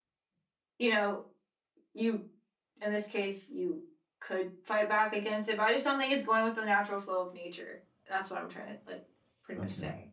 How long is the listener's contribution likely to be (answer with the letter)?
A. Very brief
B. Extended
B